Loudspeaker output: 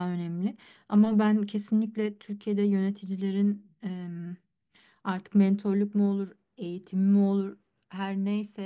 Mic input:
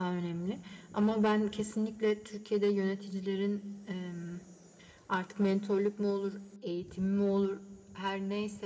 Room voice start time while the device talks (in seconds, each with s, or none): none